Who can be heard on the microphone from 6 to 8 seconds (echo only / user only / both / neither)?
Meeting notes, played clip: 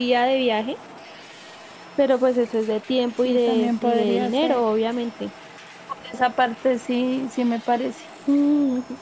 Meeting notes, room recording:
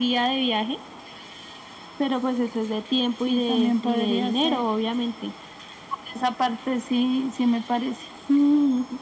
echo only